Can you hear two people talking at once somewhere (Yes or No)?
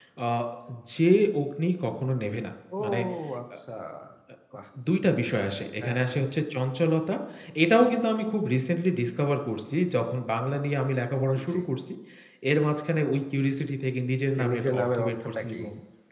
Yes